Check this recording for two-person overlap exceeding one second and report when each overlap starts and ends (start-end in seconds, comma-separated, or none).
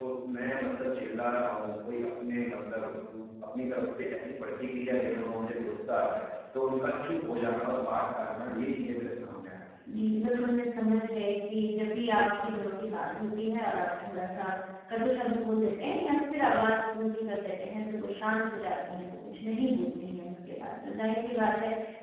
none